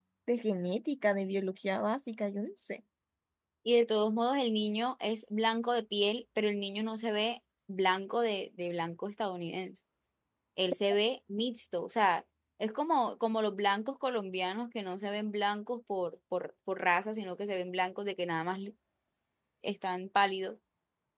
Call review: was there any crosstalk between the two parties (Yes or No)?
No